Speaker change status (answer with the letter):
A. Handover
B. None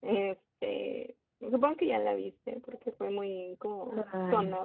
B